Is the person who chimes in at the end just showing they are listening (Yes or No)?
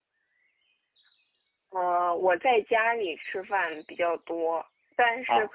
Yes